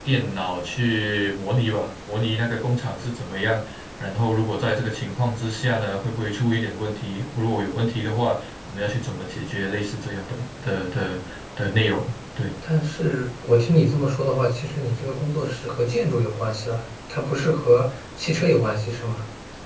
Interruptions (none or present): none